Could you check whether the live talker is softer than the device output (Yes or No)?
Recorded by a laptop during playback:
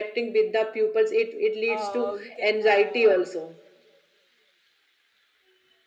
Yes